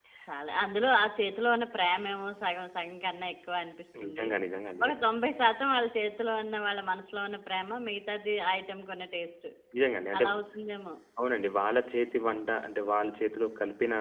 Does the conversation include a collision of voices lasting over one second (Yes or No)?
No